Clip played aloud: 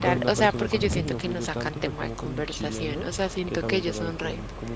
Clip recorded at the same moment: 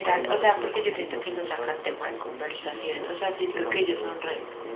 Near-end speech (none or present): present